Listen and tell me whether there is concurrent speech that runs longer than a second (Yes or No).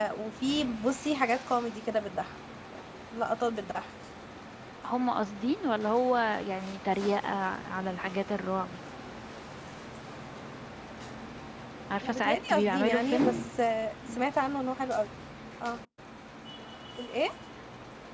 Yes